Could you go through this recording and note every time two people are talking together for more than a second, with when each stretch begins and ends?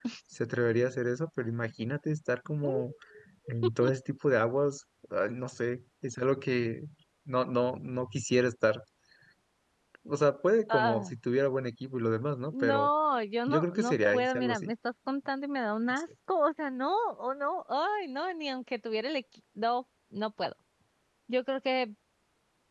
13.5-14.7

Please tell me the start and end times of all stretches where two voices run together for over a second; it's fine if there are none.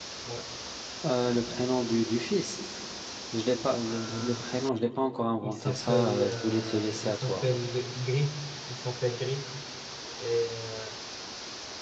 5.4-7.4

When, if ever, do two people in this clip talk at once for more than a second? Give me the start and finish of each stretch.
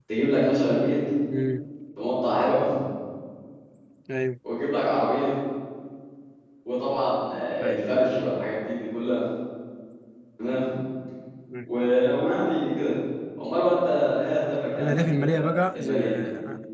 14.8-16.2

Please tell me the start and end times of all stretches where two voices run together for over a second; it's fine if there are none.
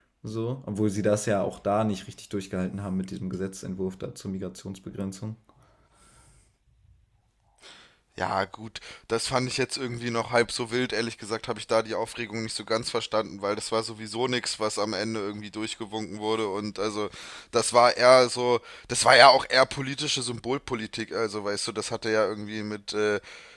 none

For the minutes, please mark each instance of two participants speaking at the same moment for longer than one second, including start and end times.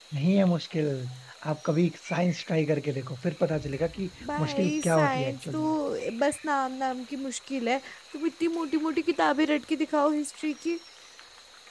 4.4-5.6

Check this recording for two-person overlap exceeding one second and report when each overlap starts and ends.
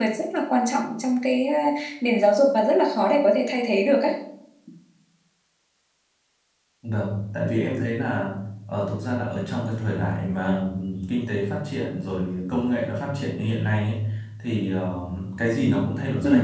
none

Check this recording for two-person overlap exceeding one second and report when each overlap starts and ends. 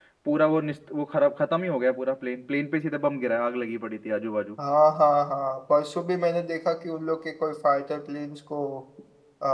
none

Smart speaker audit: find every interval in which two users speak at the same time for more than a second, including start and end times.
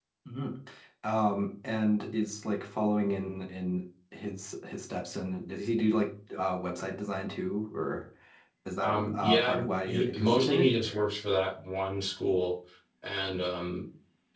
8.8-11.0

